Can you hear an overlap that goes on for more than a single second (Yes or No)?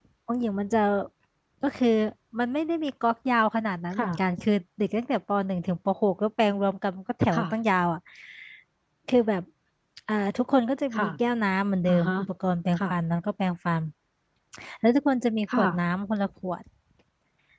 No